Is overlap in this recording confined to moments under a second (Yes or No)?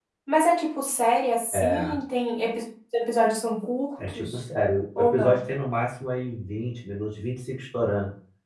Yes